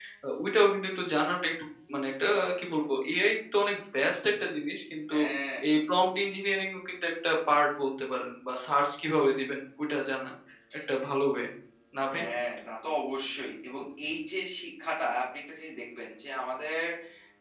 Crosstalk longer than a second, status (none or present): none